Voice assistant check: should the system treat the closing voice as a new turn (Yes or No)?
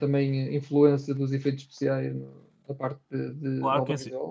Yes